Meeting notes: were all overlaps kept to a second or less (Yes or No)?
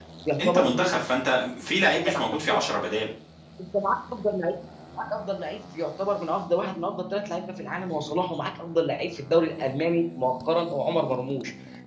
Yes